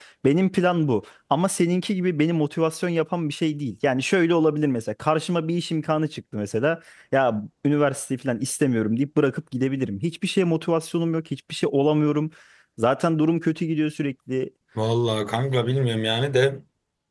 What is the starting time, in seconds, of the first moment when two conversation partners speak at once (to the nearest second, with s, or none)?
none